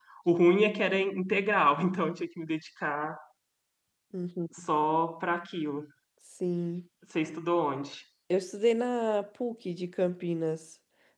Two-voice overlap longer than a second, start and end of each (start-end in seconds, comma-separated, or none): none